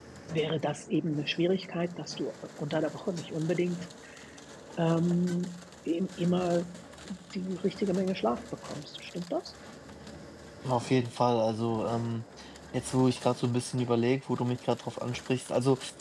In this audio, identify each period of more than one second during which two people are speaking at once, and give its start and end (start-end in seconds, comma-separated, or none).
none